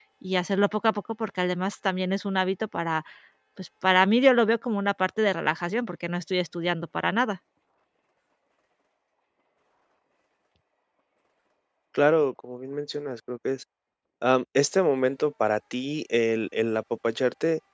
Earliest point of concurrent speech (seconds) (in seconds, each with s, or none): none